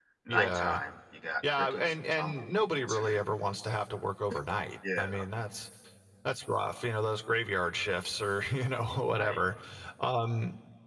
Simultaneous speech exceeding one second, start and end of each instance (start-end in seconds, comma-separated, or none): 1.5-3.0